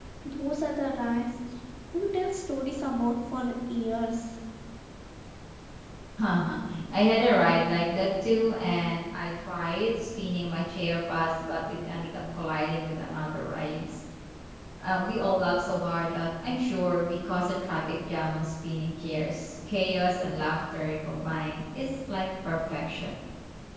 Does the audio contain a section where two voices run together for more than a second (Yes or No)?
No